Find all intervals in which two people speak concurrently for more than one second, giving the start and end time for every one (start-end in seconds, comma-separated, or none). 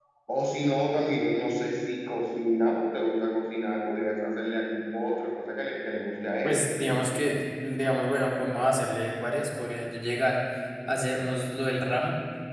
none